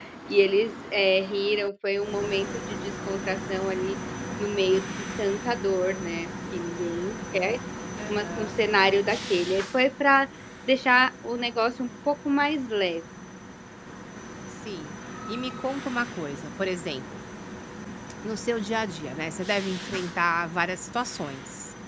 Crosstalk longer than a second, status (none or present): none